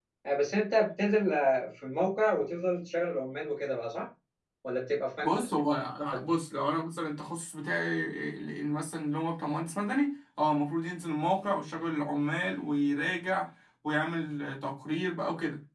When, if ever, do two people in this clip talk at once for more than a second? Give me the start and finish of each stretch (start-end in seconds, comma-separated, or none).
none